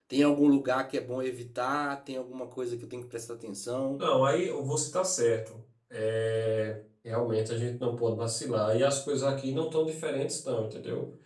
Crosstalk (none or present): none